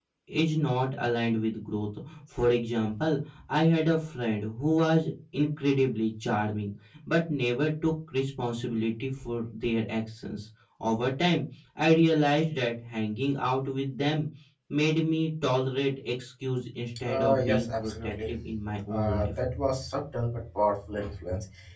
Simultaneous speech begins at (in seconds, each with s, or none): 17.1 s